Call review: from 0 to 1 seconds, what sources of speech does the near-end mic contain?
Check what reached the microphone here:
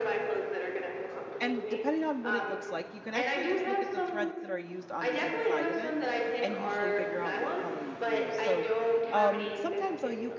echo only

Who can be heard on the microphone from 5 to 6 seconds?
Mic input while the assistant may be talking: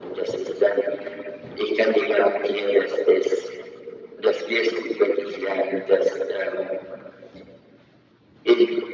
echo only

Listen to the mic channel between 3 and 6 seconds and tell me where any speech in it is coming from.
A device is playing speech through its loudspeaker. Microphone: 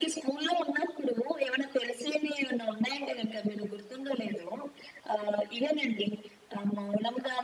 echo only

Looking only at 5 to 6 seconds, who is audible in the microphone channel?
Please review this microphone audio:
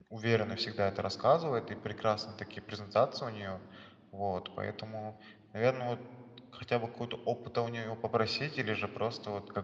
user only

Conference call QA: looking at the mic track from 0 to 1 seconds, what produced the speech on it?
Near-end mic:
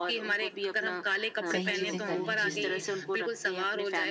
echo only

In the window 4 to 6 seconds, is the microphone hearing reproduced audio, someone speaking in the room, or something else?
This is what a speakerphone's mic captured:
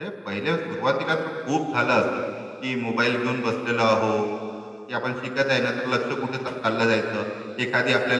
echo only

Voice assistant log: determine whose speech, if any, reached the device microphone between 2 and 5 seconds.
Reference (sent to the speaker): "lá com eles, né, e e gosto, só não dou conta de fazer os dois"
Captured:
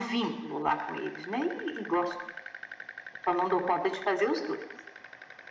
echo only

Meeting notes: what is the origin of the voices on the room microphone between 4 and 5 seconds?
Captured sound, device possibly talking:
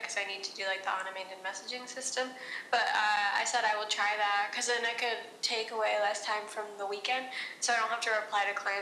echo only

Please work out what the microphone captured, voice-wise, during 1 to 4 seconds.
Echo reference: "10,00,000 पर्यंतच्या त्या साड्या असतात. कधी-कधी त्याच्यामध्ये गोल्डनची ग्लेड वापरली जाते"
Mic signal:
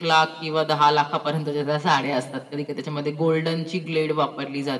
echo only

